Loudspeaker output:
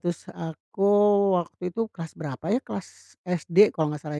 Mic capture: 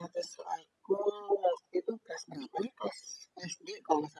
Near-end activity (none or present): none